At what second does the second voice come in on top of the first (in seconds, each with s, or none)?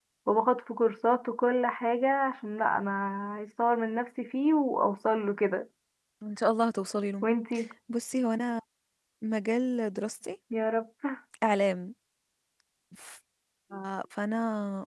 none